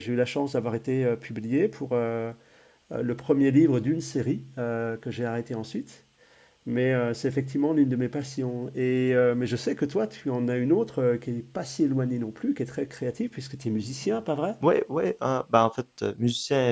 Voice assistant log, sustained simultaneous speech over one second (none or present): none